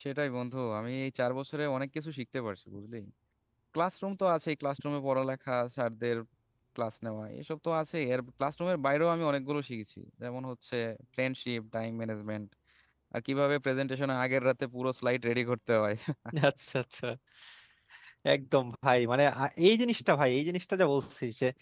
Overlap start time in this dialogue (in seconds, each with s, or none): none